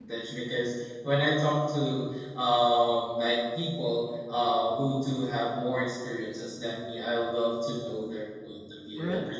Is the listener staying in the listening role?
Yes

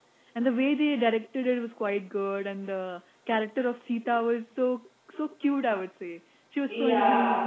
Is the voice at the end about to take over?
Yes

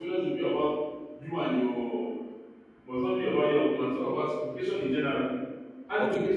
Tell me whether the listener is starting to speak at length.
Yes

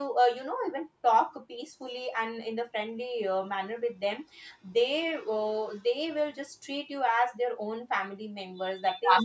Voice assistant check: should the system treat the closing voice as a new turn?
Yes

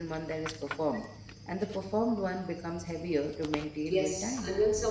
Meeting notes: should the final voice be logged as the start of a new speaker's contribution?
Yes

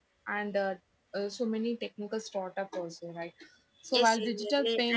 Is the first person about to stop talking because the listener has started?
Yes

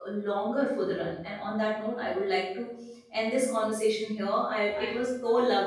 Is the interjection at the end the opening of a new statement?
No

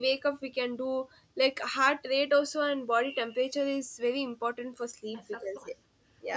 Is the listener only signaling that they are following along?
No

